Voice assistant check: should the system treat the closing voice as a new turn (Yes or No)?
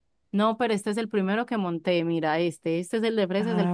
Yes